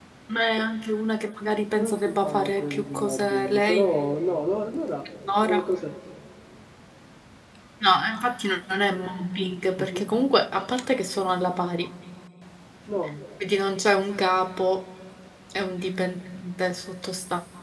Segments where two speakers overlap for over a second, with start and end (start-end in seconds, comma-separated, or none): 1.7-3.9